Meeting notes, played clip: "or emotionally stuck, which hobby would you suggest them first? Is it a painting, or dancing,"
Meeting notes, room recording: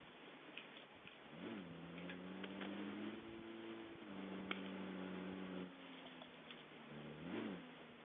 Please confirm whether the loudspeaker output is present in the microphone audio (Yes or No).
No